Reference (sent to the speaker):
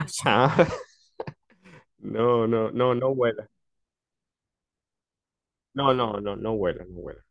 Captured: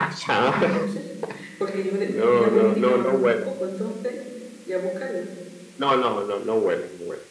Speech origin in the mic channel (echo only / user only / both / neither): both